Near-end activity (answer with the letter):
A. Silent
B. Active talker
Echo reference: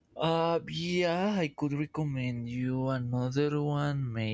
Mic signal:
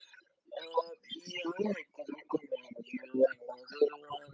A